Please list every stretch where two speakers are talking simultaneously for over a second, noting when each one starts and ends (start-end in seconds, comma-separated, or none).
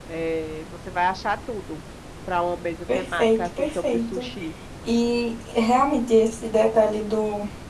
2.9-4.3